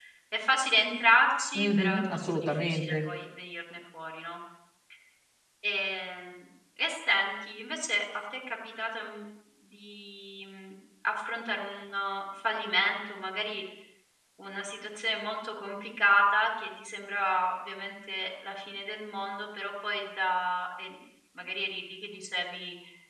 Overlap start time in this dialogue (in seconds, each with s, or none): 1.5 s